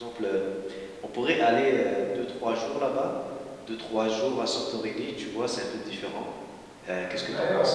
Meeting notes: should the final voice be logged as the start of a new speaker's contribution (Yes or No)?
Yes